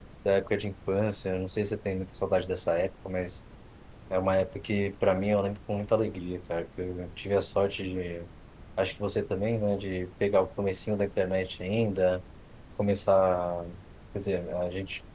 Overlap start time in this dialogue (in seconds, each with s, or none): none